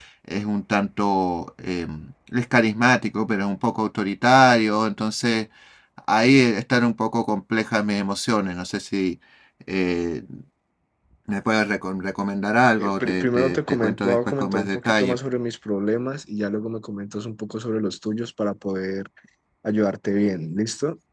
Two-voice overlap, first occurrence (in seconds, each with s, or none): 12.8 s